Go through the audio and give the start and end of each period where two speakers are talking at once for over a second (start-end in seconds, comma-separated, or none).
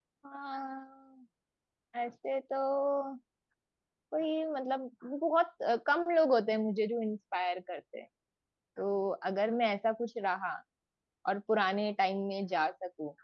none